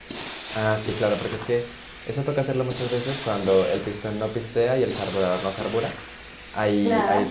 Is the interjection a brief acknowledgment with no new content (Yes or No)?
Yes